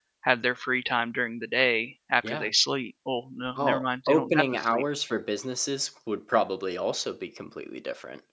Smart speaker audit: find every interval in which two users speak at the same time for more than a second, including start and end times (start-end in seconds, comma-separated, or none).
3.6-4.8